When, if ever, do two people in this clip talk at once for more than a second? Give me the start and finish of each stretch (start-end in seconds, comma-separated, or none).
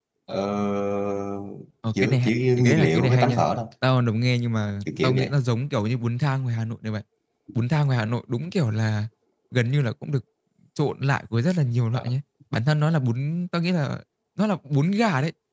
2.0-3.4